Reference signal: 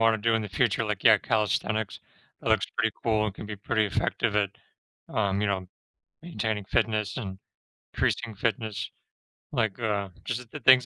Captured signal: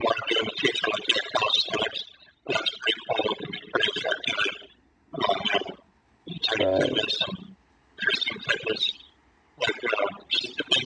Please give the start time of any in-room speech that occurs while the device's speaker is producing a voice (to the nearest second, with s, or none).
7 s